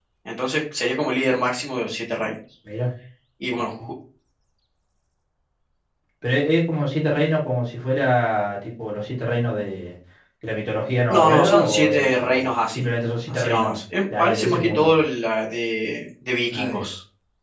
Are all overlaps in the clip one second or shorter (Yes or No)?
No